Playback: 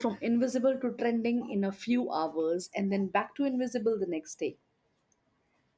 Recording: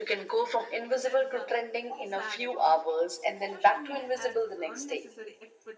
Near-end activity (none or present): present